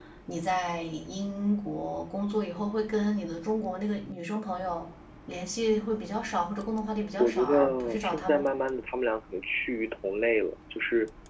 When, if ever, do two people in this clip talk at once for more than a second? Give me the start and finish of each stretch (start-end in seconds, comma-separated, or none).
7.2-8.5